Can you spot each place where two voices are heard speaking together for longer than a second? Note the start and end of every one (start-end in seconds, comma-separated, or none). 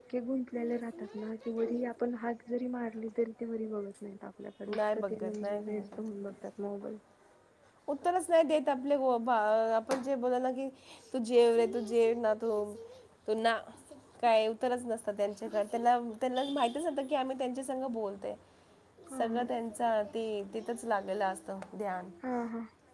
4.8-6.0